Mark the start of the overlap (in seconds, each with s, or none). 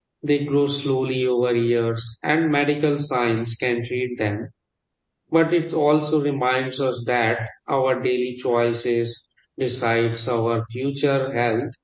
none